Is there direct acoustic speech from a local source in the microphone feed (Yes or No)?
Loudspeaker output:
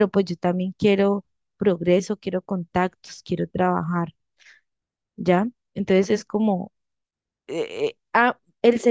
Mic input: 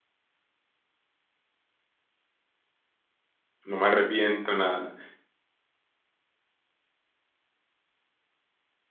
Yes